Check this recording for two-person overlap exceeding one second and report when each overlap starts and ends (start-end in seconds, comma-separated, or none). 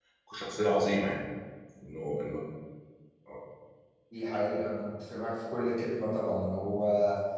none